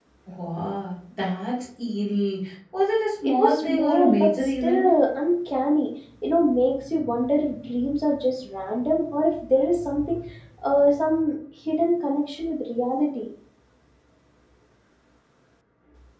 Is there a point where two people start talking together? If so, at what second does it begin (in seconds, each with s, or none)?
3.2 s